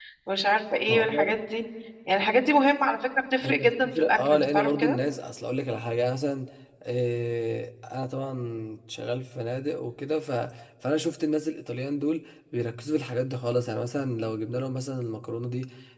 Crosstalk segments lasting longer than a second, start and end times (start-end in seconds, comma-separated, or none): 3.4-5.0